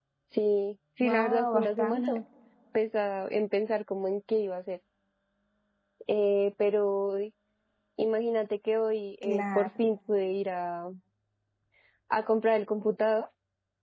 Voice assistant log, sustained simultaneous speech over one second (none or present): present